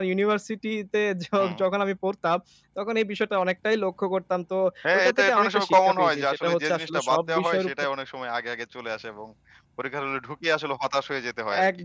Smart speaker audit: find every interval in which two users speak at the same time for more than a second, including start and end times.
4.9-7.7

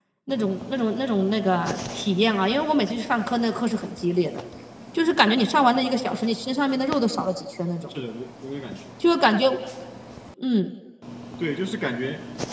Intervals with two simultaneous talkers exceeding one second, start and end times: none

